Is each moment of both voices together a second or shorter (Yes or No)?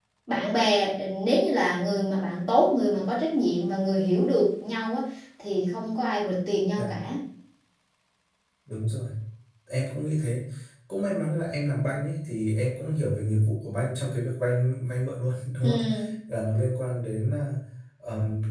Yes